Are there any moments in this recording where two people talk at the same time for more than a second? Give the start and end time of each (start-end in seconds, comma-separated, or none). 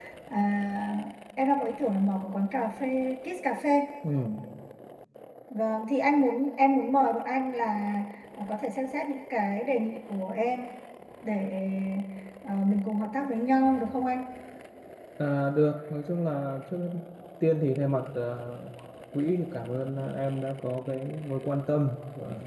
none